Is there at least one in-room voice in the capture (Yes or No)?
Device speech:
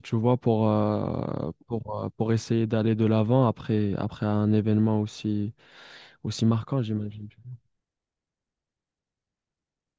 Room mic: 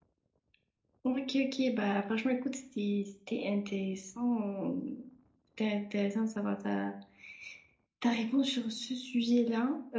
Yes